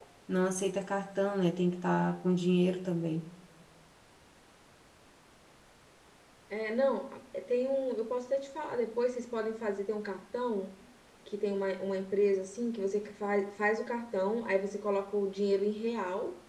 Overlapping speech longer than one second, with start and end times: none

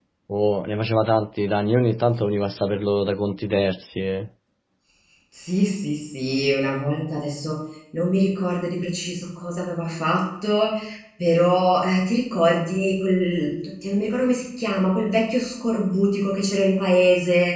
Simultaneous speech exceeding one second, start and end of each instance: none

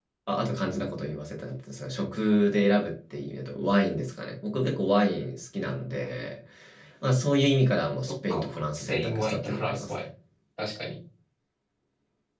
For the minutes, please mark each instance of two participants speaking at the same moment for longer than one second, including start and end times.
8.1-10.1

